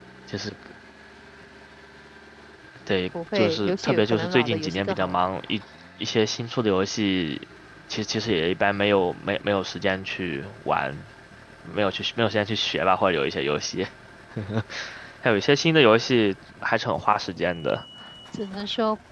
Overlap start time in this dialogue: 3.4 s

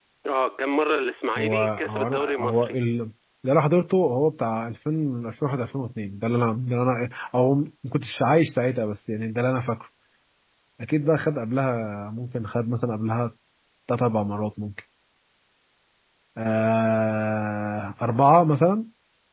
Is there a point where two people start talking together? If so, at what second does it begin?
1.4 s

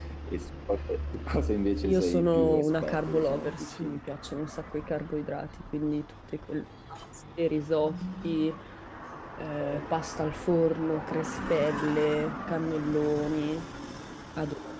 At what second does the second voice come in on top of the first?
1.8 s

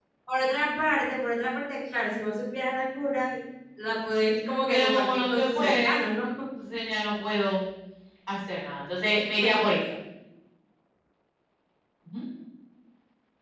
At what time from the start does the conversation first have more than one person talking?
4.7 s

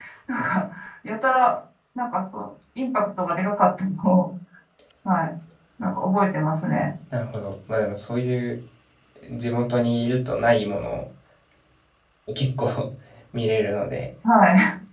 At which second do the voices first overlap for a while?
none

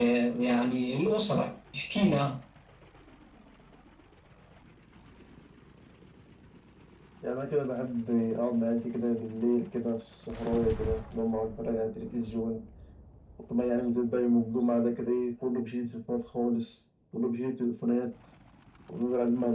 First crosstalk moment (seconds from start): none

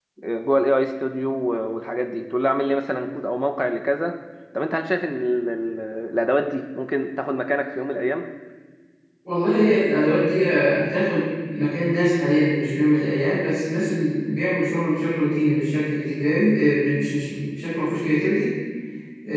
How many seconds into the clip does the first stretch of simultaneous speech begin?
none

